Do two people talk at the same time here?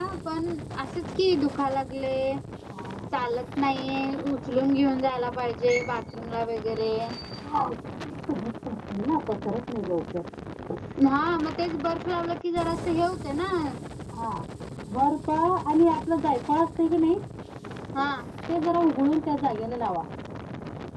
No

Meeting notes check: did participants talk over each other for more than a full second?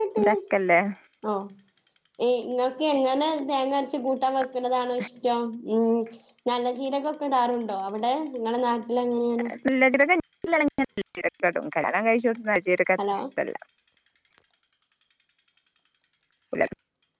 No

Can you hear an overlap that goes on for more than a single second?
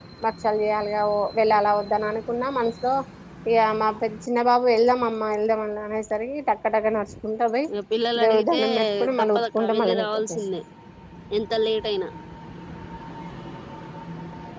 Yes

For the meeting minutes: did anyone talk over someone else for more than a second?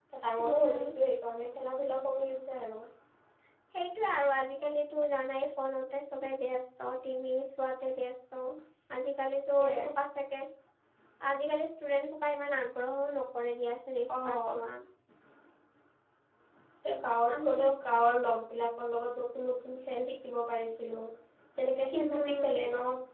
No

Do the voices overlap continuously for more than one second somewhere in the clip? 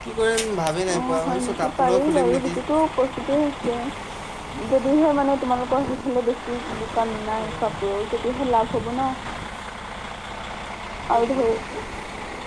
Yes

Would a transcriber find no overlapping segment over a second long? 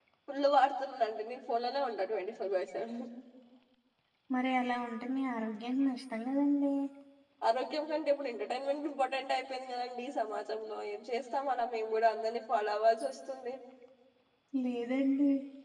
Yes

